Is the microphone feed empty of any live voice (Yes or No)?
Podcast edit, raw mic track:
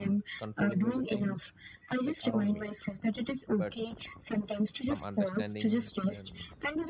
No